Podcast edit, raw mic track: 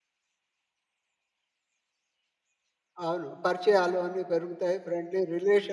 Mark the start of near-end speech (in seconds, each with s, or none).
3.0 s